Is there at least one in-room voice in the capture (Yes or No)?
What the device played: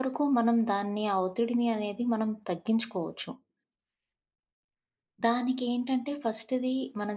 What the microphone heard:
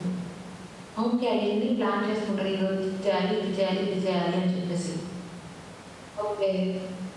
Yes